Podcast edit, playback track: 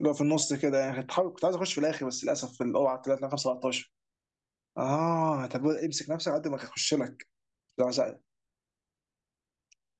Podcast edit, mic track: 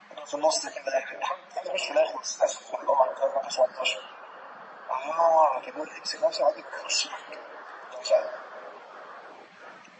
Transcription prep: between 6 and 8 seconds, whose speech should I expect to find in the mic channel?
echo only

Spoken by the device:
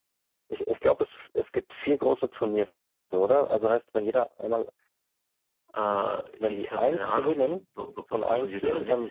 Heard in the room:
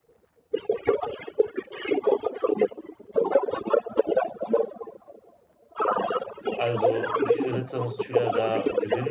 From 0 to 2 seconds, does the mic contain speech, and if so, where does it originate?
echo only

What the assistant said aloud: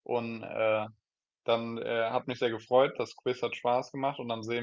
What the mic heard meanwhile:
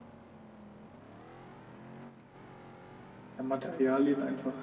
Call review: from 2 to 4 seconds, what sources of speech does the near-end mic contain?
user only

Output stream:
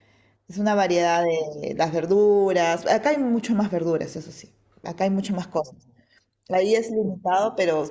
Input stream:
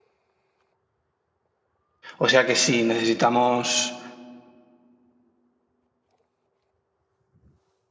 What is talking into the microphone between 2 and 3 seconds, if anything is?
user only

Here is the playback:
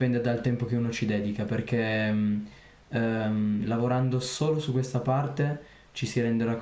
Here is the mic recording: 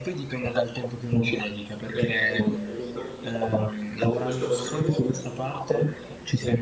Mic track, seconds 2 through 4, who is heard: both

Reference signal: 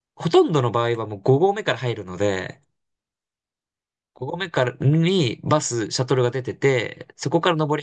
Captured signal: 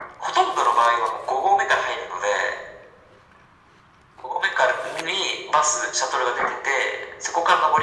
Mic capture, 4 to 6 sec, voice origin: echo only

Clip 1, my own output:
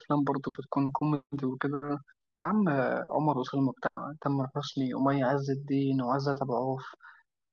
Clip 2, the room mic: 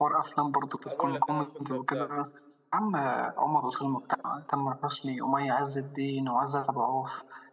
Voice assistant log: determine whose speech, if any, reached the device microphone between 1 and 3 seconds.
both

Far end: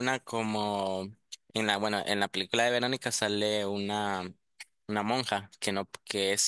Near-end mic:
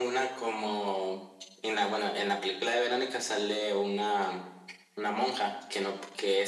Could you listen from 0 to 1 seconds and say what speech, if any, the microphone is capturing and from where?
echo only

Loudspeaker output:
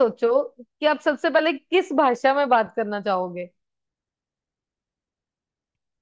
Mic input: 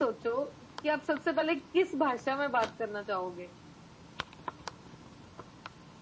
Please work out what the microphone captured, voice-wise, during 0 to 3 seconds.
echo only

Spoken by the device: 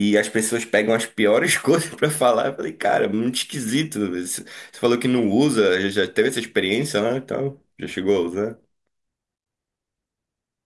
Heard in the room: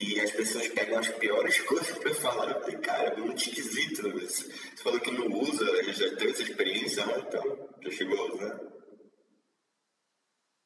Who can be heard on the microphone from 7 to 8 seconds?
echo only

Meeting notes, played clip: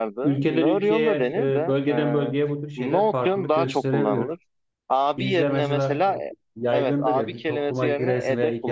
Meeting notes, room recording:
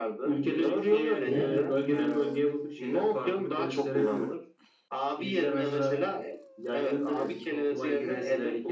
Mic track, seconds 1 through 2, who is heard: both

